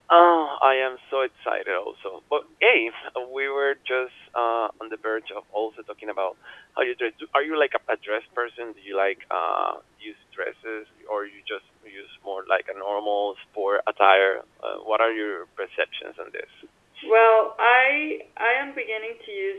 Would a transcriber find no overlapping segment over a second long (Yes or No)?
Yes